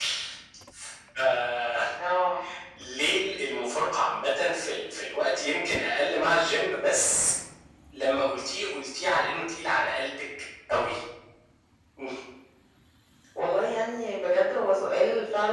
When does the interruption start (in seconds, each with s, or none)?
none